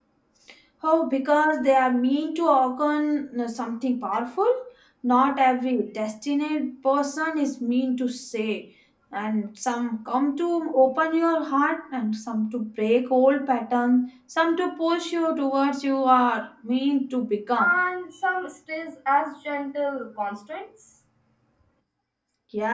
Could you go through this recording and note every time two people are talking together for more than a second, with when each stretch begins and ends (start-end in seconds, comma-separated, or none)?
none